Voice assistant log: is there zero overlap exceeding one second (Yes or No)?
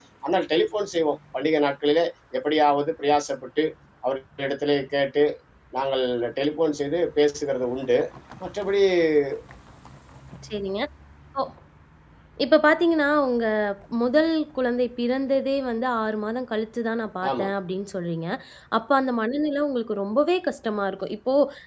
Yes